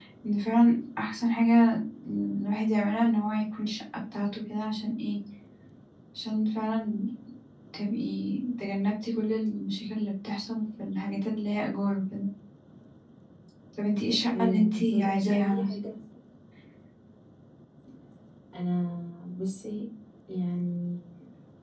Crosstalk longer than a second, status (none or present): present